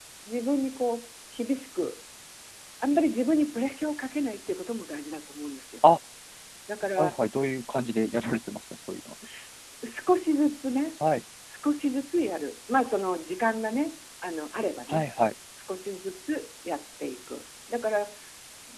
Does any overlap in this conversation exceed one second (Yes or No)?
No